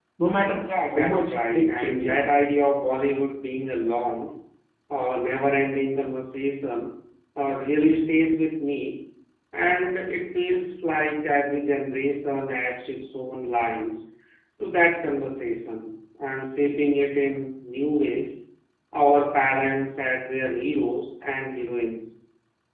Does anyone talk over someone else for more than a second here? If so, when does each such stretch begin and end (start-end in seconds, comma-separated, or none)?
0.6-2.3